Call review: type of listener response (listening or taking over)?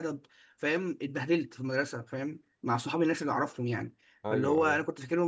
listening